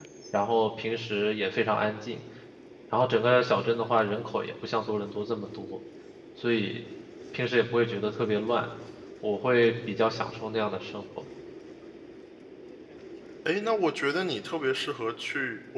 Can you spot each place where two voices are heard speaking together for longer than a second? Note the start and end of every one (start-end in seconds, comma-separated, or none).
none